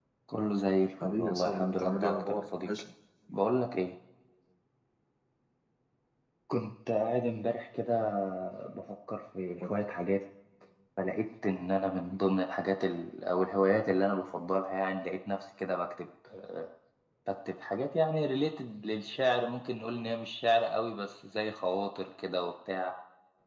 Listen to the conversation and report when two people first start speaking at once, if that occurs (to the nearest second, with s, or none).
1 s